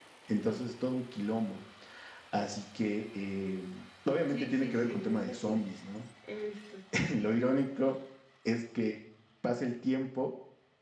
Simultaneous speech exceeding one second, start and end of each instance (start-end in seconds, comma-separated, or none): 4.3-5.6